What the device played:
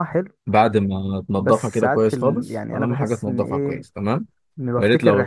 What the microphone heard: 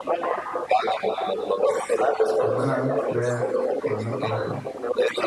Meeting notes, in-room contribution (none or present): present